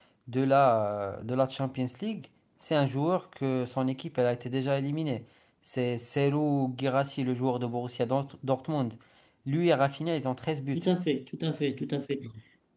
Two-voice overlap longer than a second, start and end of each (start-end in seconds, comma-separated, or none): none